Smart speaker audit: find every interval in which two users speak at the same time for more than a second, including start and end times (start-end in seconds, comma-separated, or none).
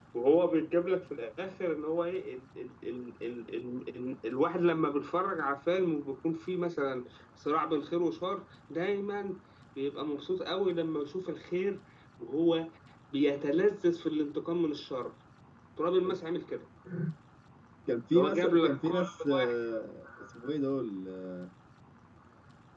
18.1-19.6